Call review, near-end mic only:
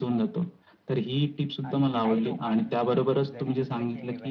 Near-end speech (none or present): present